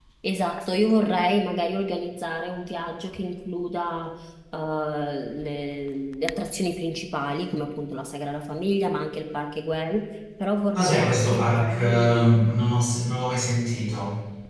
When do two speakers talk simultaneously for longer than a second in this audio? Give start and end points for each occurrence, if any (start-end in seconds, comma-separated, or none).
10.7-12.3